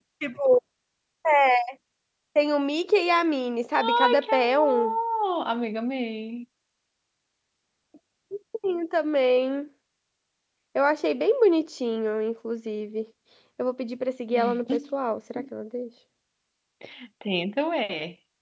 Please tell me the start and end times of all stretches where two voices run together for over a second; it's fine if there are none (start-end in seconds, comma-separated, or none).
3.7-4.9